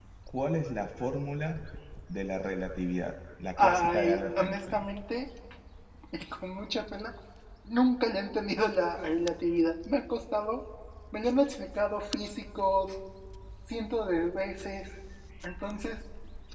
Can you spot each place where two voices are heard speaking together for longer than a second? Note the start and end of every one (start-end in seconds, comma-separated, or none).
3.6-4.8